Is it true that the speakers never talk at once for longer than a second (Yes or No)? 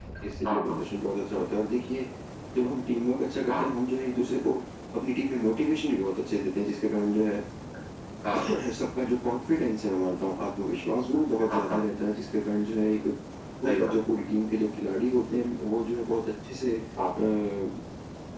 Yes